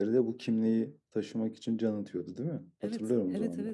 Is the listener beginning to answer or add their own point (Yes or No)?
Yes